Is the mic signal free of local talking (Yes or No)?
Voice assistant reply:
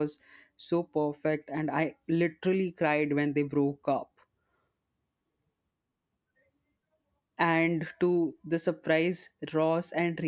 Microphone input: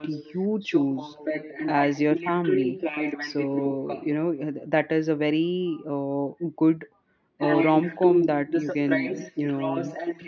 No